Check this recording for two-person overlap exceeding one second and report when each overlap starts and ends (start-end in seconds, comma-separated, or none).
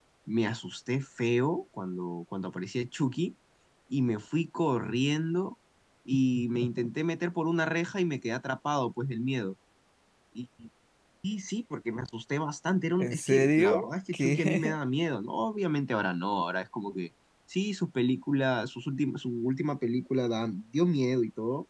13.0-14.8